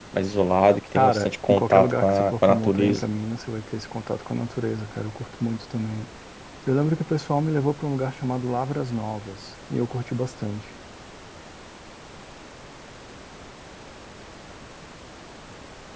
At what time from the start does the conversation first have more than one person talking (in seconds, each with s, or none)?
0.9 s